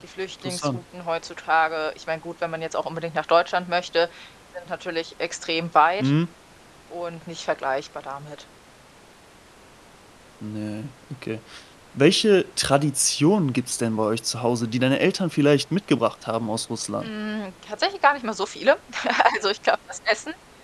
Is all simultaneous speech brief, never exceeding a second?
Yes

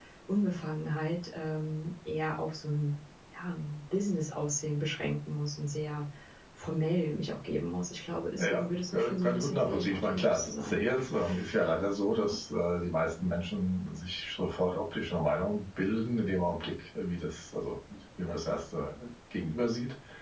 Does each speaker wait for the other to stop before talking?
No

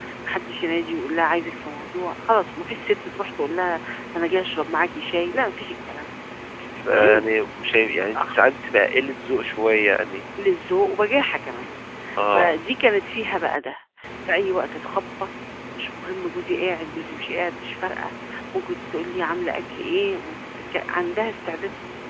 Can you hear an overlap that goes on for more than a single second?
No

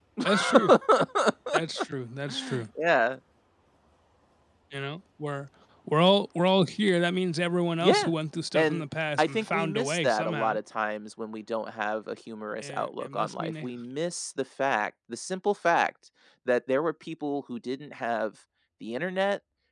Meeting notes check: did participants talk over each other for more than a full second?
Yes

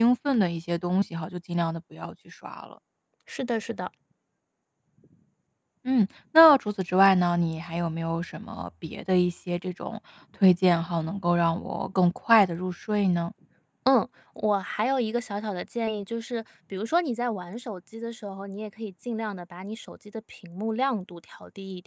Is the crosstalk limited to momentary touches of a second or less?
Yes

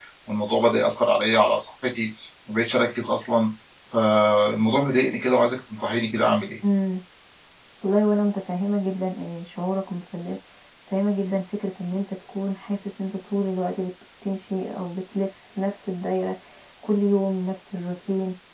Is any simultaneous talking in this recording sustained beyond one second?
No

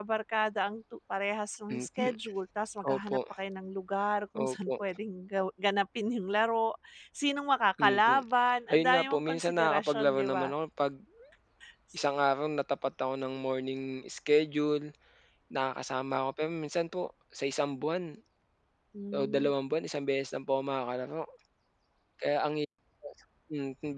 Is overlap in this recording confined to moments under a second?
No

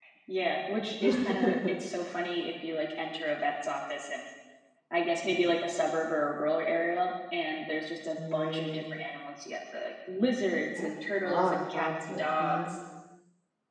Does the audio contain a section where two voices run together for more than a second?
Yes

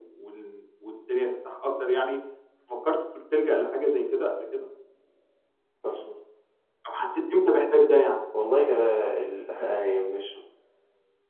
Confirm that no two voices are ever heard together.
Yes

